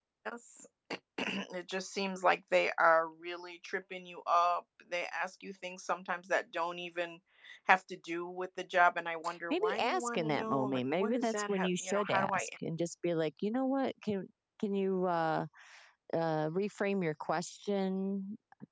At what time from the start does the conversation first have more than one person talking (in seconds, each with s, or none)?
9.5 s